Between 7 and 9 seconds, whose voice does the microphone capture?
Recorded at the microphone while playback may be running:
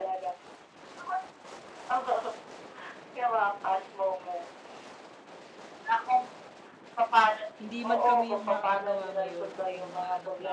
both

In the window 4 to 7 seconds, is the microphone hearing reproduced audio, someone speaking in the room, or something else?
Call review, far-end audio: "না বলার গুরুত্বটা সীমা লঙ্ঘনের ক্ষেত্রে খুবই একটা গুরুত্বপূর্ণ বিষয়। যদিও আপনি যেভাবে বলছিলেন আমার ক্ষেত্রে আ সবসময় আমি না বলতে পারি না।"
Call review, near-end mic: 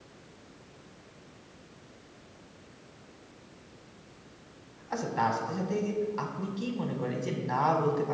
user only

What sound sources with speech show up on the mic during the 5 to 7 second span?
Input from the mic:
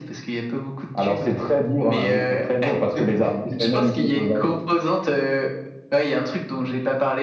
echo only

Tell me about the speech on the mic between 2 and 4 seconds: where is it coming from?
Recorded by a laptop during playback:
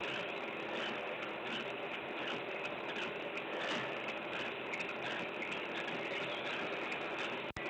neither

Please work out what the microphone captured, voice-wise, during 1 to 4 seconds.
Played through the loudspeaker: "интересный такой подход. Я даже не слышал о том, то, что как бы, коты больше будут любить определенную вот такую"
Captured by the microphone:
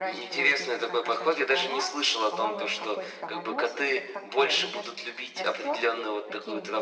both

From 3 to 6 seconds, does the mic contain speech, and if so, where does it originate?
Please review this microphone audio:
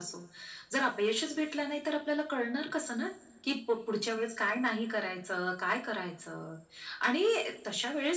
echo only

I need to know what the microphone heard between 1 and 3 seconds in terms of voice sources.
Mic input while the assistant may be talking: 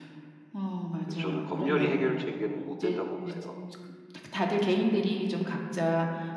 both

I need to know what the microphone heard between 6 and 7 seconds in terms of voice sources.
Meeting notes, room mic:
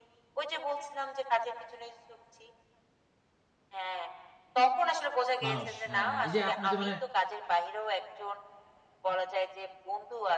both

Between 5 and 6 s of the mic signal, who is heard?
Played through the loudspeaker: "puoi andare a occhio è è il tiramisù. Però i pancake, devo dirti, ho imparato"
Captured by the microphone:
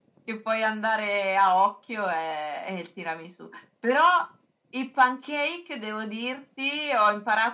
echo only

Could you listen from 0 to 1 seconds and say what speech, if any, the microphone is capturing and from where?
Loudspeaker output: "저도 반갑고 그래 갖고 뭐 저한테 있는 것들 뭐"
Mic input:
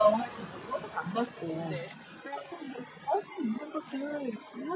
echo only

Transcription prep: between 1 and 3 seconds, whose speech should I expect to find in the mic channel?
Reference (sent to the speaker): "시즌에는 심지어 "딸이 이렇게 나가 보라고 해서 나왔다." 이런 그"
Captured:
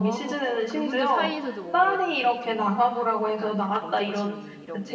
both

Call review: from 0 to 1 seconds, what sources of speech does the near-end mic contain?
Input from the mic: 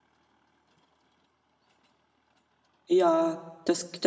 neither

